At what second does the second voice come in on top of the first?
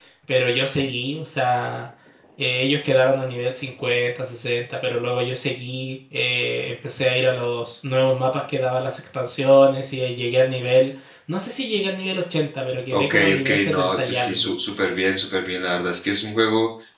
12.9 s

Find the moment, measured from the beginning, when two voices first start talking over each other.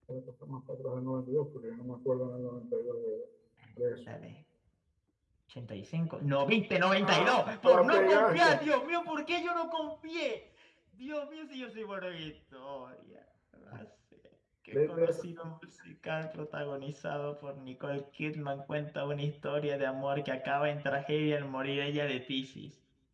7.1 s

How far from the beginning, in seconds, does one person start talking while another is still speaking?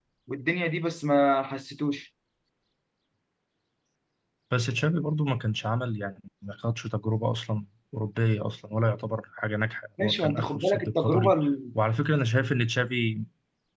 10.0 s

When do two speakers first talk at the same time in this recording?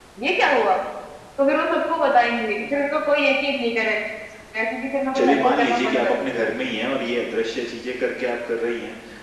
5.1 s

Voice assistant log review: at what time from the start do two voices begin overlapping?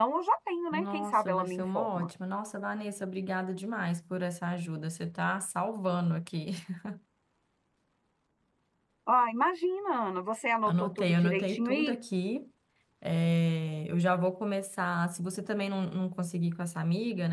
0.7 s

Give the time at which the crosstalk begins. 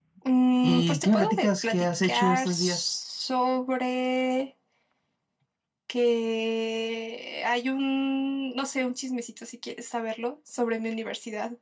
0.6 s

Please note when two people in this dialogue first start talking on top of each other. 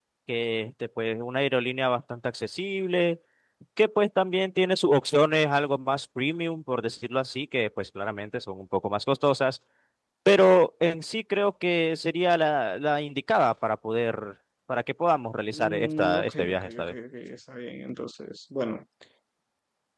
15.5 s

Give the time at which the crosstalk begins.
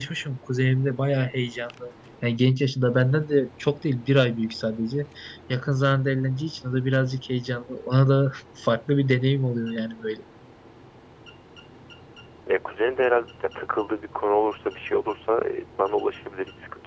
none

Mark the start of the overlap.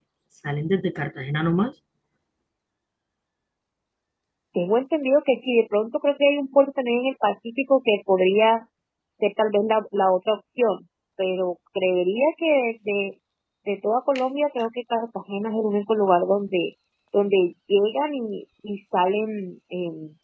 none

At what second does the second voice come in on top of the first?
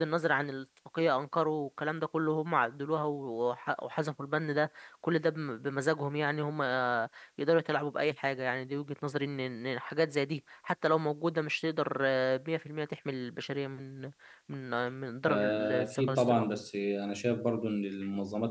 15.2 s

